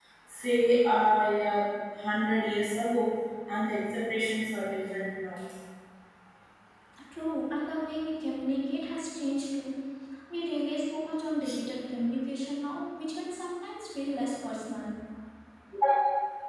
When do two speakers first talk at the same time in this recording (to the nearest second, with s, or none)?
none